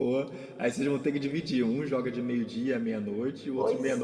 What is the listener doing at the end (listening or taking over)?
taking over